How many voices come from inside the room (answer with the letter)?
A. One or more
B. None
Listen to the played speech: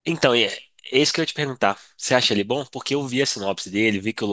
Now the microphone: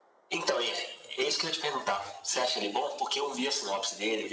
B